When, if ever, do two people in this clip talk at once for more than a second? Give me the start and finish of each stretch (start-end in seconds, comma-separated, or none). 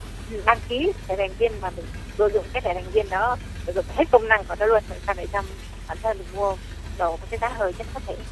none